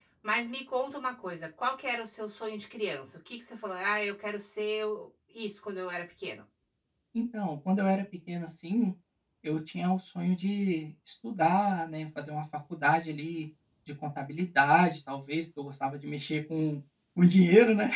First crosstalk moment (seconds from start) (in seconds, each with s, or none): none